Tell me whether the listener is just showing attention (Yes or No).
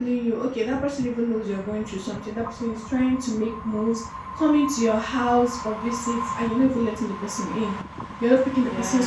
Yes